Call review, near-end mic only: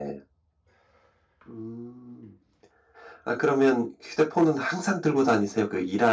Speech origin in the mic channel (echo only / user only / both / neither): echo only